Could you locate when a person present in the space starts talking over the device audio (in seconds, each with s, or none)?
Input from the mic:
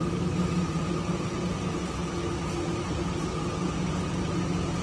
none